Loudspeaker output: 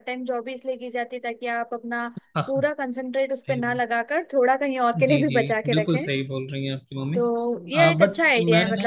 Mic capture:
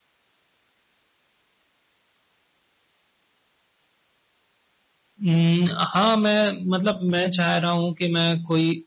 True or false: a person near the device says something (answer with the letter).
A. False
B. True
B